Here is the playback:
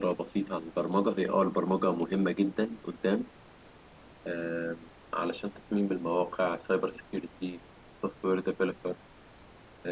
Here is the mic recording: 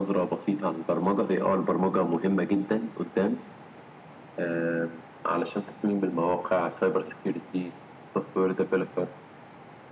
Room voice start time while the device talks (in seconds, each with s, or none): none